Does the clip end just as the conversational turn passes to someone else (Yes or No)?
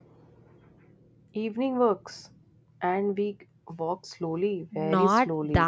Yes